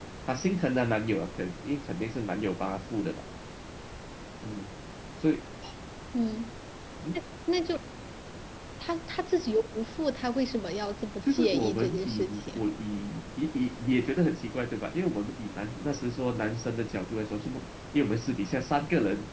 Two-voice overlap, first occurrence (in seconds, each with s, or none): 11.3 s